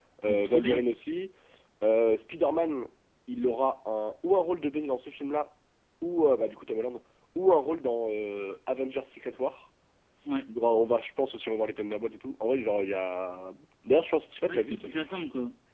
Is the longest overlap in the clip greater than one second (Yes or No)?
No